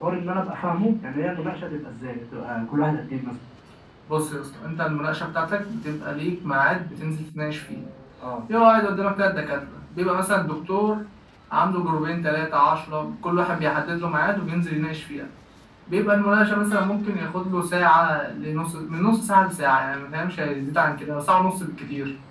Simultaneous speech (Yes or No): No